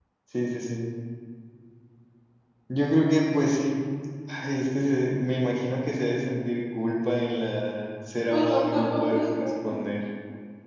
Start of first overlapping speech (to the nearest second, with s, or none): 8 s